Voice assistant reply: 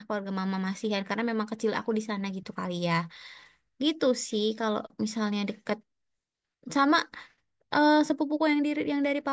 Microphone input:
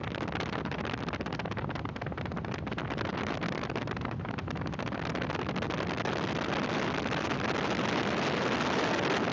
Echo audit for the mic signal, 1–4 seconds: neither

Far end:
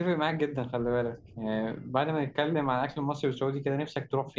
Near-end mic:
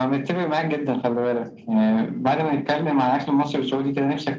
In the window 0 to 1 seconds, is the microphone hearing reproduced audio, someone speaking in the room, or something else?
echo only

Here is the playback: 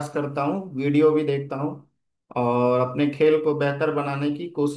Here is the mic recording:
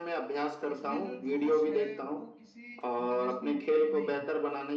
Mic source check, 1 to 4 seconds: both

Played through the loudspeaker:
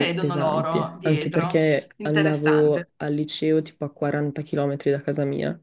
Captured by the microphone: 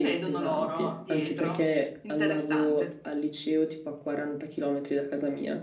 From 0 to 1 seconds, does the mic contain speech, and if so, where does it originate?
echo only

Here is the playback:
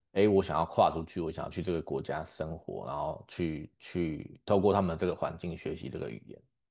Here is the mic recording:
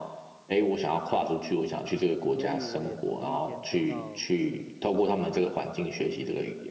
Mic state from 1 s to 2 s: echo only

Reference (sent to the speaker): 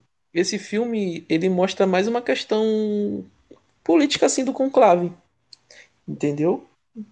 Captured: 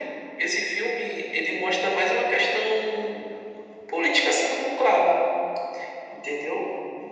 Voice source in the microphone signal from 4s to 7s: echo only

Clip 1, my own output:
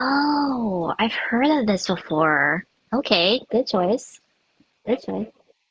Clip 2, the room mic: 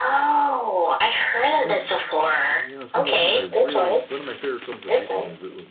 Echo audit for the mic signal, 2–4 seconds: both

